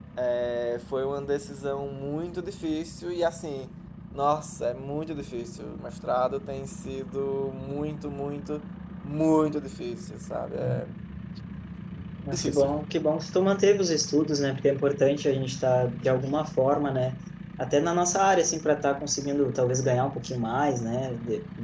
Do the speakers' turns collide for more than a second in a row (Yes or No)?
No